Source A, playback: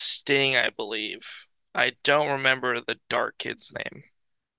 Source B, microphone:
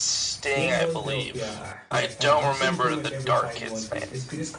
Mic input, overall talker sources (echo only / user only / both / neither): both